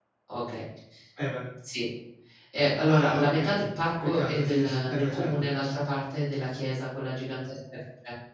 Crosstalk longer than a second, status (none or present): present